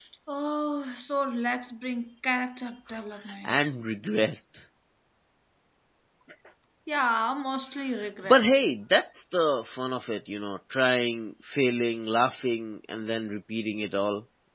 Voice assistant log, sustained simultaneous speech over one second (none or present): none